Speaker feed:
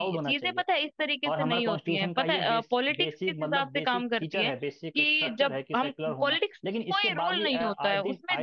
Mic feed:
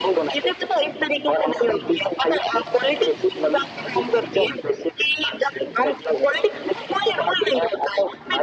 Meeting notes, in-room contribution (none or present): none